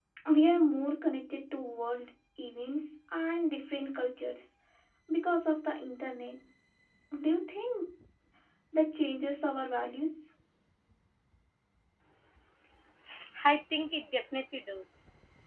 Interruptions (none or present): none